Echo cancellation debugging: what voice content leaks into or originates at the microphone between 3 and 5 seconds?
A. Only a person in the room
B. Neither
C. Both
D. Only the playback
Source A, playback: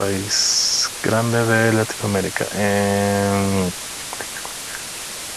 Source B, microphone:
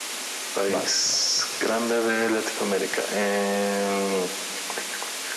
D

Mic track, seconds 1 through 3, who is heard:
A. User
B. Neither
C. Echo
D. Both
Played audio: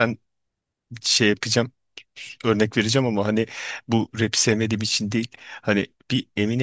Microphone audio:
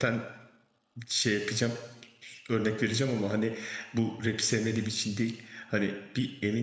C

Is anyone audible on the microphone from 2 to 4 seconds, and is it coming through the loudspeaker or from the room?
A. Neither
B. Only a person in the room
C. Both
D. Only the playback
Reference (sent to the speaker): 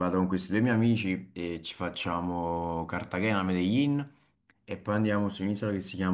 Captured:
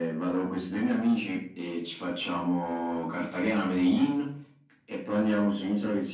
D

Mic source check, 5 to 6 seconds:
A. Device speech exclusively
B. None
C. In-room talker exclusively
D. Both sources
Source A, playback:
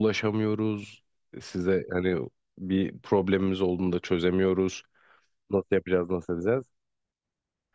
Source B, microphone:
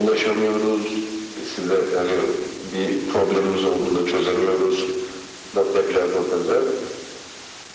A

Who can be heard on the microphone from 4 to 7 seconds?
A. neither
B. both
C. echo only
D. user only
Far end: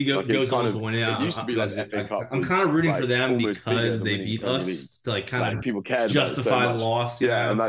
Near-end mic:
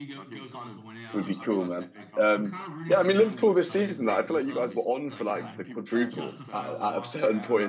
B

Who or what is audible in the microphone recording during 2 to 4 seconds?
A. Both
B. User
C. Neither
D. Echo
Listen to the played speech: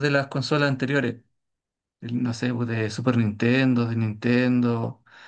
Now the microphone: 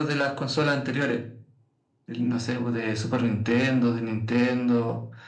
D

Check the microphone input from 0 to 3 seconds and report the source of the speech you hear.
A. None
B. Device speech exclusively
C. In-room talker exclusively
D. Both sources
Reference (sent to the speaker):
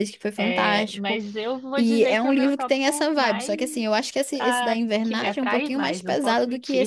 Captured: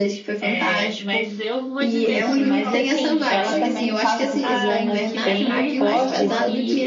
D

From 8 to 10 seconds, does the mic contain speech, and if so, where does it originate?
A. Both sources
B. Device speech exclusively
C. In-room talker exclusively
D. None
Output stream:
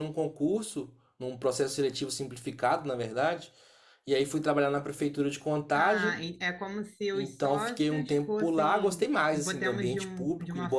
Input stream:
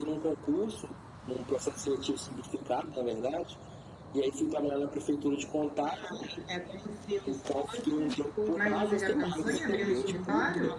A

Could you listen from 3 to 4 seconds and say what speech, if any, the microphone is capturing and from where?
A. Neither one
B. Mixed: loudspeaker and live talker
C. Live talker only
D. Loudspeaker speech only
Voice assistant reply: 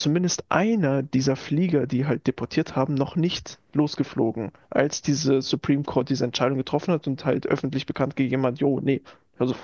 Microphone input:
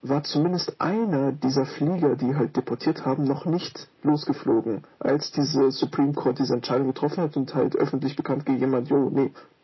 D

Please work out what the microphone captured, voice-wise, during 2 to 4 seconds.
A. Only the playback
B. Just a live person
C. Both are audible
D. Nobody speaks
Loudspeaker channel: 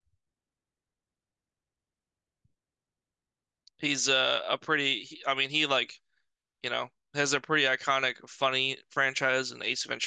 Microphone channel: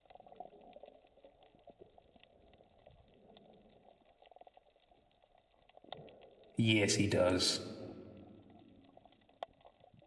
D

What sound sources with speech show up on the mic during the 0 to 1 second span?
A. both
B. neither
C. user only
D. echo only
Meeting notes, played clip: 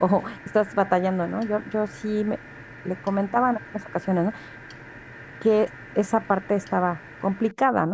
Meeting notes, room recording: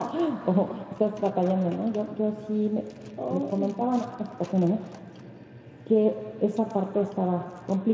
D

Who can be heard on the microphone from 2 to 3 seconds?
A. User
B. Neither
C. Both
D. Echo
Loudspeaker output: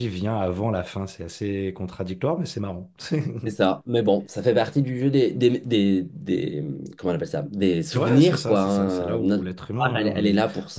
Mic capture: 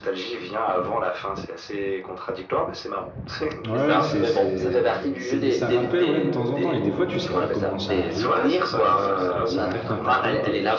D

